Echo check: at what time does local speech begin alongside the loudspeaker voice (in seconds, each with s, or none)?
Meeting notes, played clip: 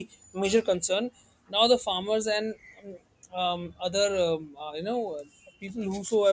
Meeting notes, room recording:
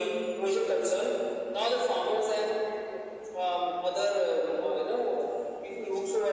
none